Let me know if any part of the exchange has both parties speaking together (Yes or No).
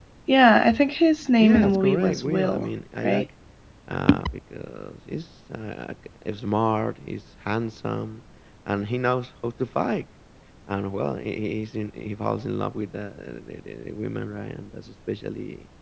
Yes